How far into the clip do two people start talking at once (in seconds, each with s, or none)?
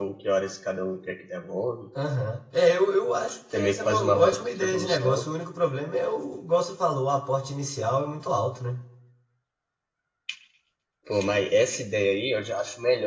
3.5 s